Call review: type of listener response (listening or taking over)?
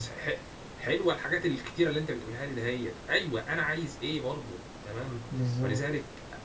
listening